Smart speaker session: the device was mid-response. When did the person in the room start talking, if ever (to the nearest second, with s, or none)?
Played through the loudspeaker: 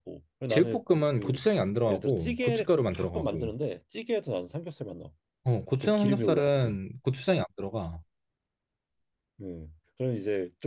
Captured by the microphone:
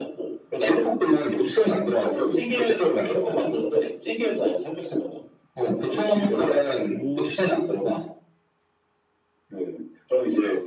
7 s